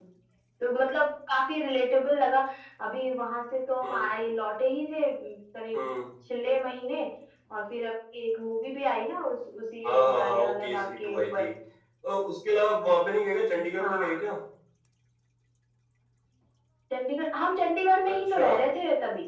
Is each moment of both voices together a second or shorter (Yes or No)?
No